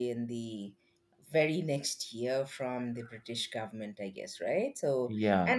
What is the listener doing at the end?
listening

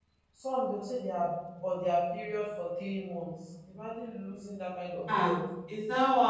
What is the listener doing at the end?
taking over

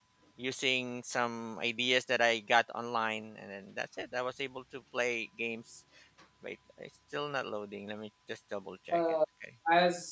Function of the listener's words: taking over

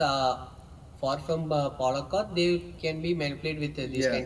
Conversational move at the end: taking over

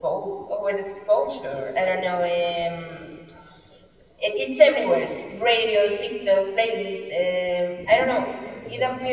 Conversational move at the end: listening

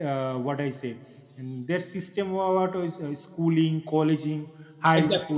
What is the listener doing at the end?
listening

